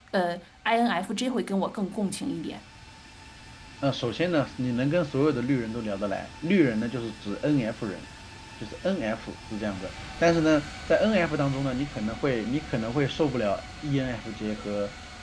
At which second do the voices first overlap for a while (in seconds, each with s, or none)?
none